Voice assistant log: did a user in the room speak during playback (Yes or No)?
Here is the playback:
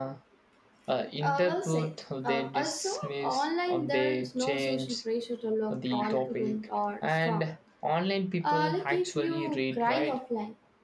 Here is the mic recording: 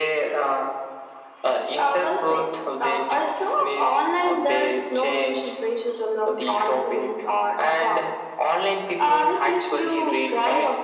No